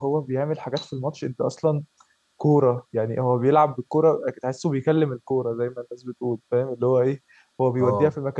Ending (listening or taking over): listening